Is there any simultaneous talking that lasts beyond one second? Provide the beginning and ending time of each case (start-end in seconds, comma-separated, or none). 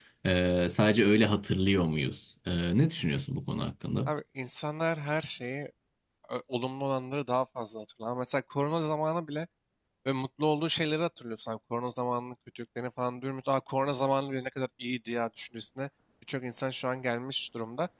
none